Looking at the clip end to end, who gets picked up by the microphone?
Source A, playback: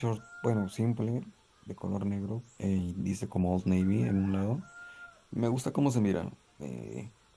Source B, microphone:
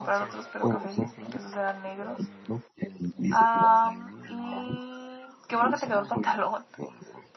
both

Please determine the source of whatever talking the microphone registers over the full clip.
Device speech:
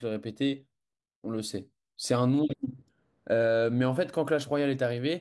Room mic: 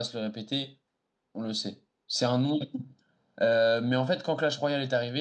echo only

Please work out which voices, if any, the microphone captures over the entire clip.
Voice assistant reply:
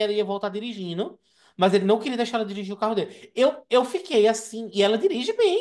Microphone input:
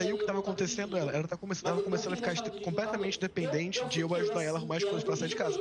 both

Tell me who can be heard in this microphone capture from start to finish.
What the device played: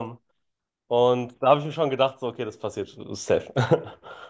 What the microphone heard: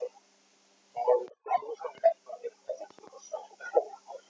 echo only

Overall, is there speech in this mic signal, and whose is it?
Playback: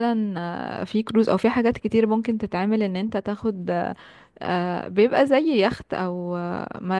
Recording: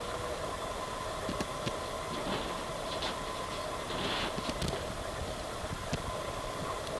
neither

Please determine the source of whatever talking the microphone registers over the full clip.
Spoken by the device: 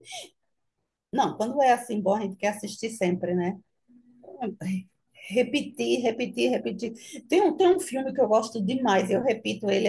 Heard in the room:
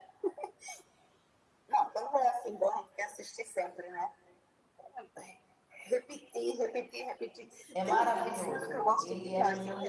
both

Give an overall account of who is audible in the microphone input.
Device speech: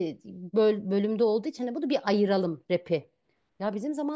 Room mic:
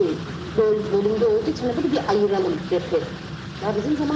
echo only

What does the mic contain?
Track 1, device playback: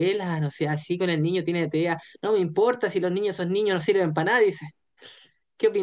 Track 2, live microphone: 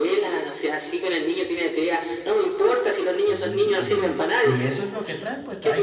both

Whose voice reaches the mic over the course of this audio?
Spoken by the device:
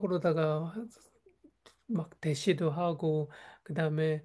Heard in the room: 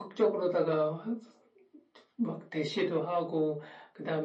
echo only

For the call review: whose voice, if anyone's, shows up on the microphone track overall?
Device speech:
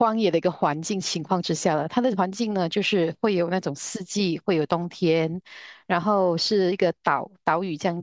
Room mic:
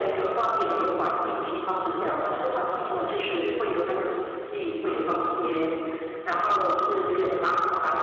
echo only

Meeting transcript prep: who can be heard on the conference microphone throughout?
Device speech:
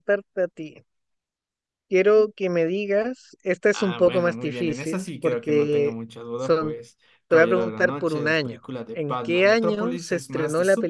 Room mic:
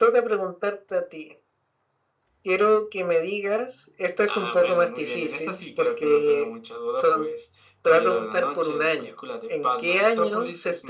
echo only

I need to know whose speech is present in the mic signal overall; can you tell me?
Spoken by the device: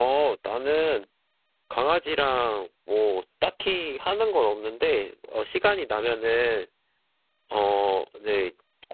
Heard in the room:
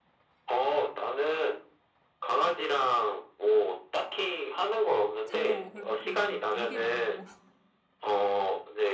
both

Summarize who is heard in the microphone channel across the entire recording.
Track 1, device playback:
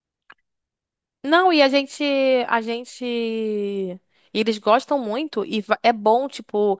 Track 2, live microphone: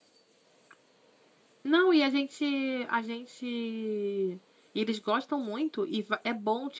echo only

